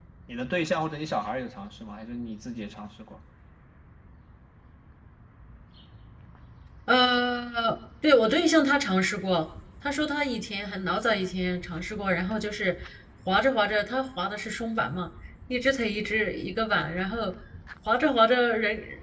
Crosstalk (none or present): none